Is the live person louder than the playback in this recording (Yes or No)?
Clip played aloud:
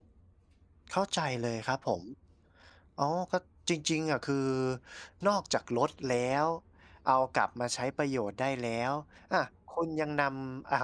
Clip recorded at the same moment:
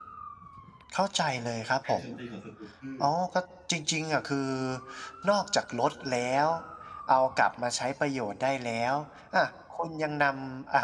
No